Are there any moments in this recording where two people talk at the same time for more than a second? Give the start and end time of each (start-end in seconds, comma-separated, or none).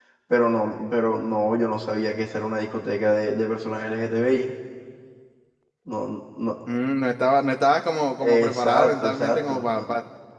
8.2-9.8